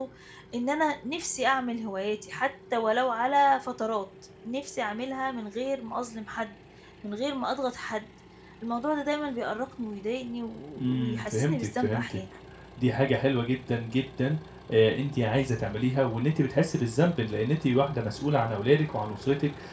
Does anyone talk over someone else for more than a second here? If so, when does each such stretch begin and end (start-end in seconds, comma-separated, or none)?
10.8-12.2